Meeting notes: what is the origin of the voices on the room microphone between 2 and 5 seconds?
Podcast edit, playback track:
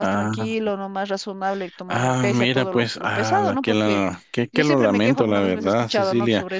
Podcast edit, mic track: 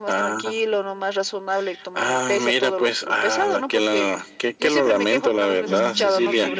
echo only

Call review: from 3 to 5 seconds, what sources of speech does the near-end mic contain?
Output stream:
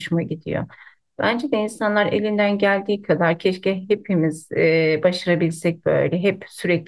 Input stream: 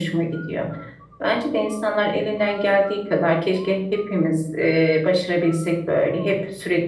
echo only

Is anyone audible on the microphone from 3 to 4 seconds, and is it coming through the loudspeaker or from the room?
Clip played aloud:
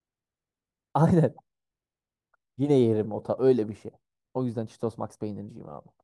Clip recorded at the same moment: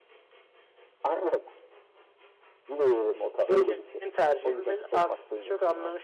both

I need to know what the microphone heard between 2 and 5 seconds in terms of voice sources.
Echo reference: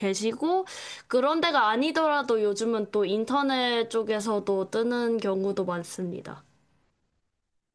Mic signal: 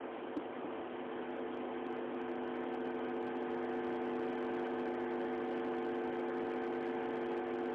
neither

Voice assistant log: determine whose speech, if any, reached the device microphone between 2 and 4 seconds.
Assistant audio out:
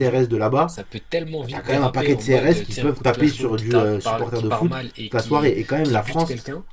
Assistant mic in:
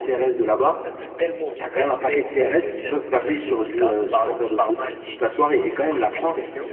echo only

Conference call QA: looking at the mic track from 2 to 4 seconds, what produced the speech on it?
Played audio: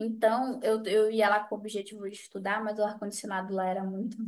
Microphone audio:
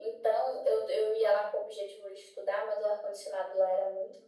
echo only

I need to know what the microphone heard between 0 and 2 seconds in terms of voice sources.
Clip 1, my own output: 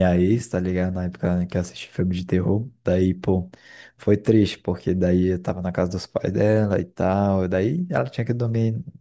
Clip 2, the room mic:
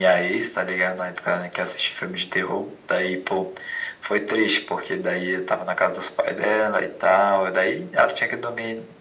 echo only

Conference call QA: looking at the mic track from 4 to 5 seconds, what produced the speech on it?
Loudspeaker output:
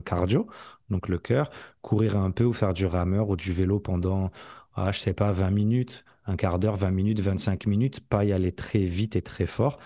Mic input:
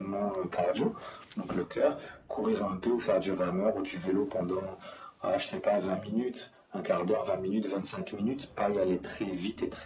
echo only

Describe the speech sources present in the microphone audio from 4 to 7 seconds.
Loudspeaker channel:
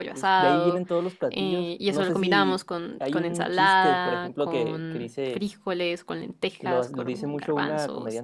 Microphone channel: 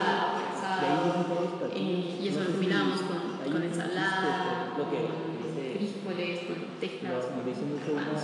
echo only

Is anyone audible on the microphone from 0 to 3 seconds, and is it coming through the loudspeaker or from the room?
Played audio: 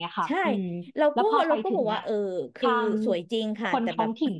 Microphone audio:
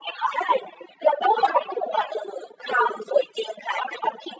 echo only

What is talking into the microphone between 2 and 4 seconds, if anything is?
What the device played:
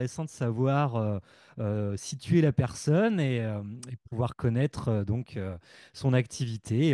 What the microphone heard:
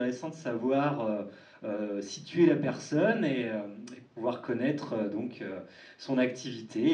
echo only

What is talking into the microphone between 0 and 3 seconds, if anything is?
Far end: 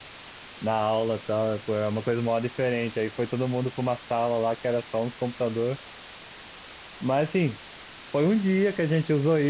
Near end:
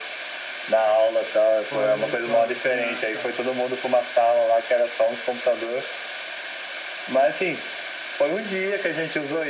both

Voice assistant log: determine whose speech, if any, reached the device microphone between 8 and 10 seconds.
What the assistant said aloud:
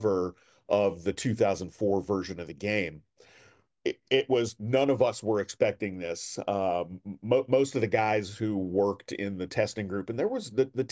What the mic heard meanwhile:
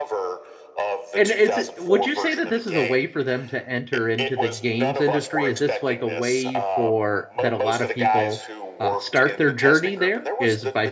both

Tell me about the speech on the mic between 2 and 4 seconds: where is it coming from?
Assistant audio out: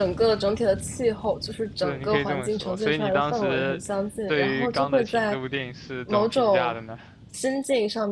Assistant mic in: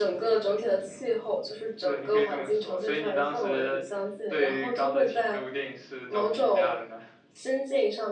echo only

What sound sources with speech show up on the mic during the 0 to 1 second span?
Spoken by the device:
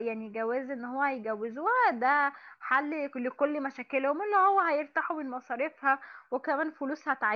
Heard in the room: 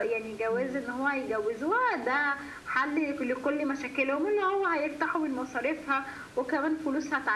both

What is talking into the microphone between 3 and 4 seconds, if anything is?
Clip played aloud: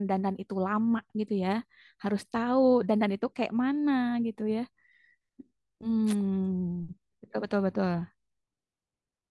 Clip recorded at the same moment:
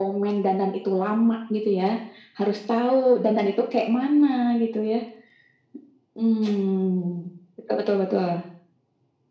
echo only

